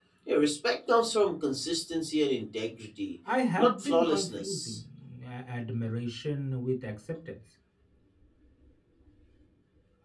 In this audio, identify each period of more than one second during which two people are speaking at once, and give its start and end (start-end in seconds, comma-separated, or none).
3.6-4.8